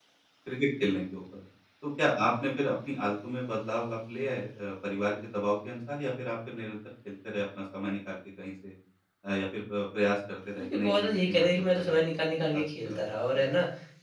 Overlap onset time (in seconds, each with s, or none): 10.7 s